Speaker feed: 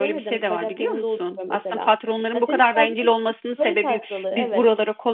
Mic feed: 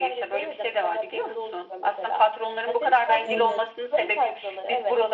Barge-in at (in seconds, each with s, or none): 3.2 s